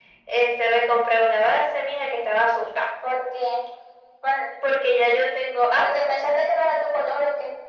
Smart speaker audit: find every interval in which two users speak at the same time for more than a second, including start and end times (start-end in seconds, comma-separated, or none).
none